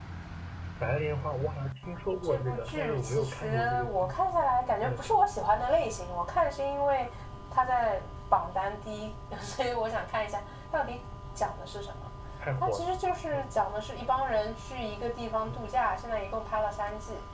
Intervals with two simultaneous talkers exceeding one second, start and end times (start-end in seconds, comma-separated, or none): 2.2-4.1